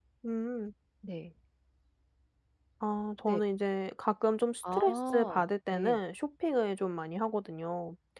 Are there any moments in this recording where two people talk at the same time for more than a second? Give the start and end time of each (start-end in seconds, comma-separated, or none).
4.7-6.0